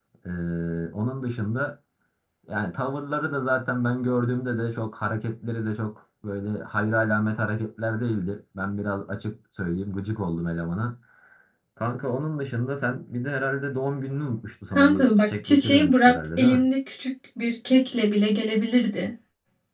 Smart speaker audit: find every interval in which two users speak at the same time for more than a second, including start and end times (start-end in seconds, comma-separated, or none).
14.8-16.6